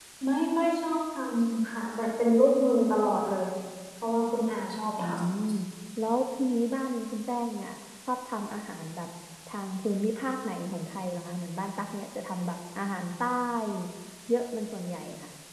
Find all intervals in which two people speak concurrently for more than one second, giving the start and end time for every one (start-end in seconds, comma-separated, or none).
none